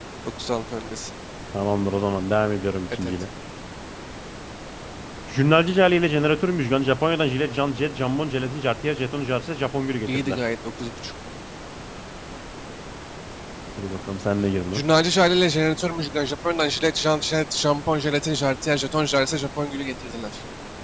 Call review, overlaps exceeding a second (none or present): none